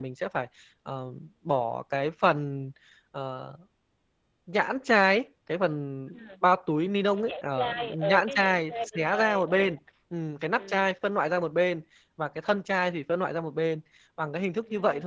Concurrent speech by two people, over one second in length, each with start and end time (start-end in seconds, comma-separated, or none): 7.2-9.6